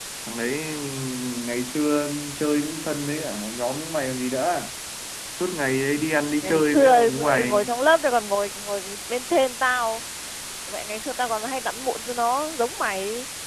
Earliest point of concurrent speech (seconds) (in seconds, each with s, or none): 6.4 s